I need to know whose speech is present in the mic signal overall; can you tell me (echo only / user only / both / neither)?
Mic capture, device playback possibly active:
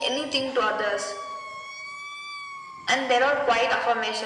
echo only